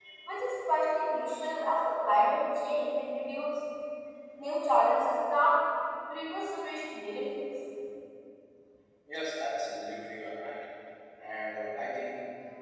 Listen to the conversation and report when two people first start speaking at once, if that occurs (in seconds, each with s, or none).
none